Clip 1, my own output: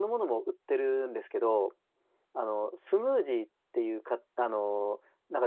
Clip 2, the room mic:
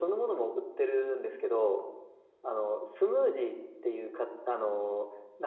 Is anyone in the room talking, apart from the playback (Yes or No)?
No